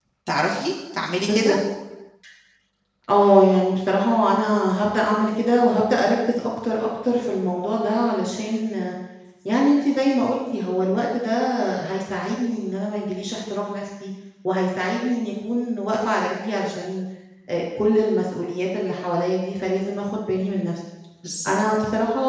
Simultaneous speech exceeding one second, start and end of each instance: none

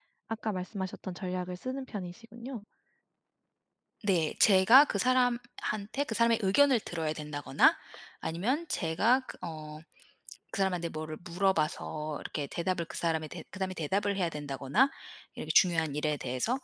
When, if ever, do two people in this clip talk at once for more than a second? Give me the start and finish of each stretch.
none

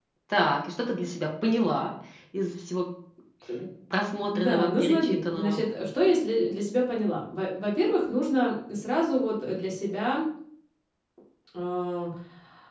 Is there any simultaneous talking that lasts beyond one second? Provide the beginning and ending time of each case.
4.3-5.6

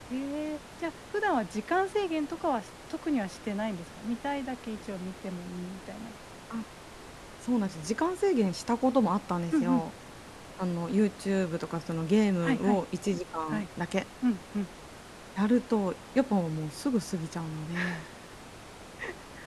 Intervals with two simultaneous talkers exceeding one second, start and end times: none

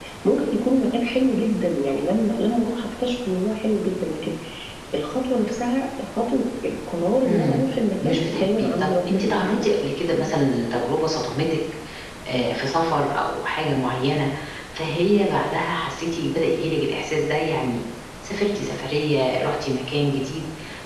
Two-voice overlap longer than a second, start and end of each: 8.0-9.7

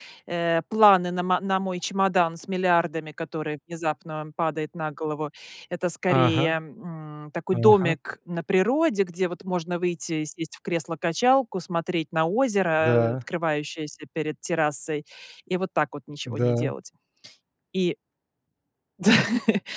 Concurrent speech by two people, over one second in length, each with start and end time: none

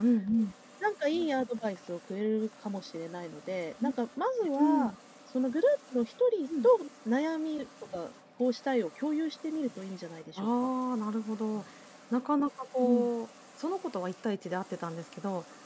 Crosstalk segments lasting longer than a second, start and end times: none

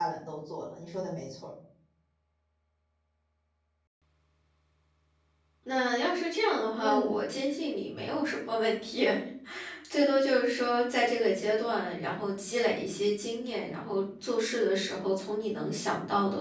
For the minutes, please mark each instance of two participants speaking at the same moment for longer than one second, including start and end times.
none

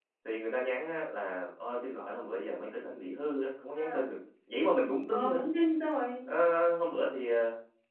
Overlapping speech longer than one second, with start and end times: none

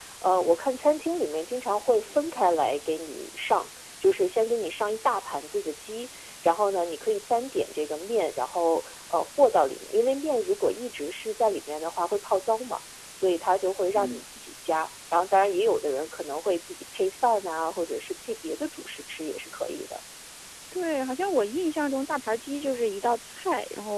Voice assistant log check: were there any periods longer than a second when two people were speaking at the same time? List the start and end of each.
none

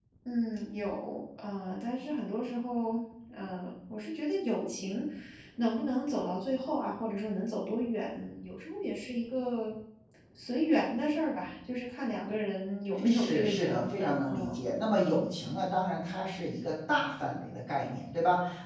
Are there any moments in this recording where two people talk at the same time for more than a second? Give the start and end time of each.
13.0-14.6

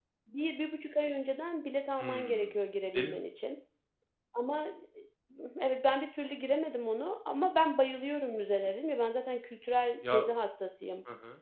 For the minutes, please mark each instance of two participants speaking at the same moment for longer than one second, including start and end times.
none

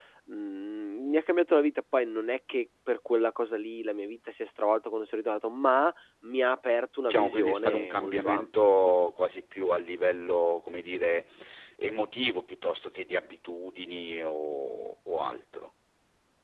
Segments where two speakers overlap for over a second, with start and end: 7.0-8.5

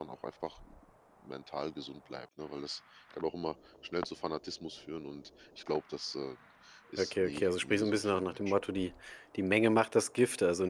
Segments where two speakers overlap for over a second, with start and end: 7.0-8.6

